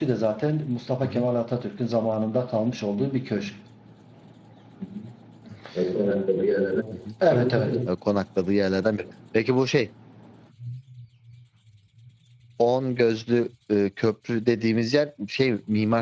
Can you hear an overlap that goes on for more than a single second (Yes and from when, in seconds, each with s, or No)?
No